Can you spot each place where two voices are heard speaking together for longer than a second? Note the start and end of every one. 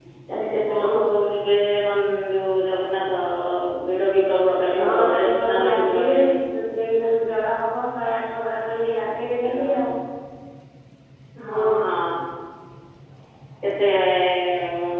4.7-6.3

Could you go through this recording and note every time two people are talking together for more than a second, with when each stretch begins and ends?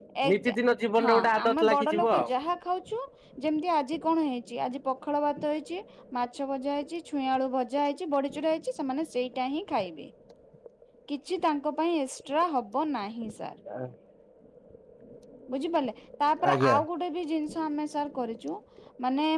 1.0-2.3

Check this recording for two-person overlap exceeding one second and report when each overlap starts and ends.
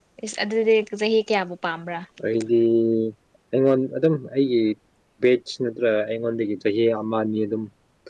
none

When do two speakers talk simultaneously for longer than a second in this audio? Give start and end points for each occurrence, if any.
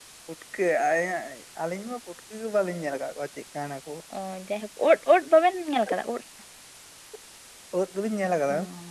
none

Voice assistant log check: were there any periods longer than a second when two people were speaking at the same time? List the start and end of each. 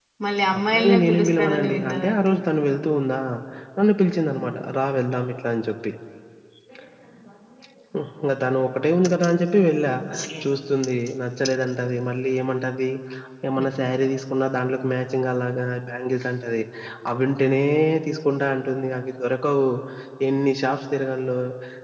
0.6-2.3

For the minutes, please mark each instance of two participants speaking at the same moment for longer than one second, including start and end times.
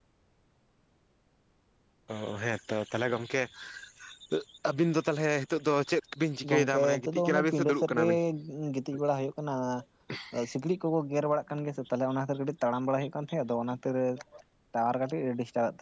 6.5-8.1

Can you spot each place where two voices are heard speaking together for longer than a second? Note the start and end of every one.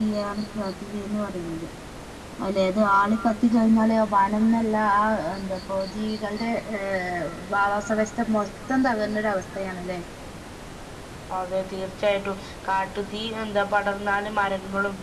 none

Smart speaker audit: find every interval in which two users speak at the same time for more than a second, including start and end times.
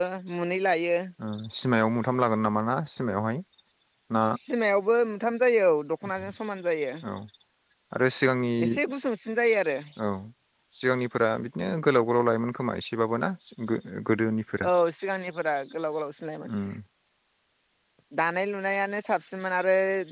none

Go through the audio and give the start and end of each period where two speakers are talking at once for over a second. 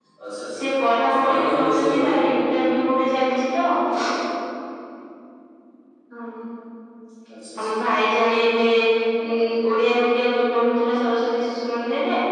0.6-2.1

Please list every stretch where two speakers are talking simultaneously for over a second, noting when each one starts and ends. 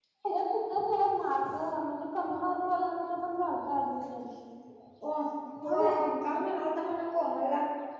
none

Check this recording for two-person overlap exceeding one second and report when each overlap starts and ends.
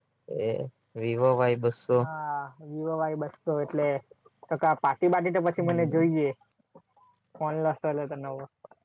none

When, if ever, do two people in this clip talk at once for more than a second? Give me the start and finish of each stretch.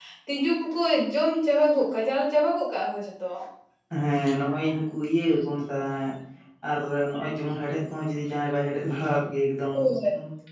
none

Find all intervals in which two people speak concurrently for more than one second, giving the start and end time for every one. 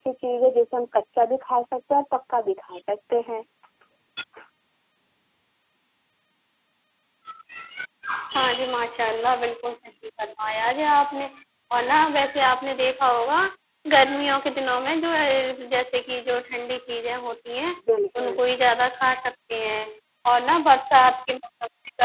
none

